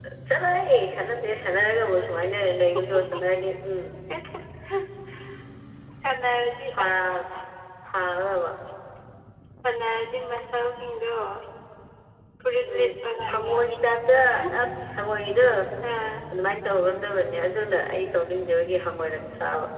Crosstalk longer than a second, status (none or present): none